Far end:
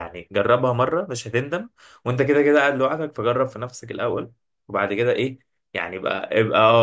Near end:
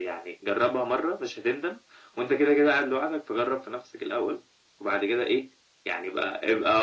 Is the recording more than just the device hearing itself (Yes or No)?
No